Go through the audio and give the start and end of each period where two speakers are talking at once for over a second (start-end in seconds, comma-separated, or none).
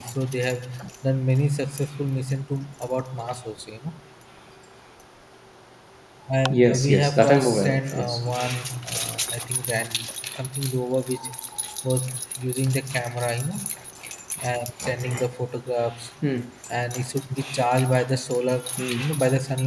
6.5-8.3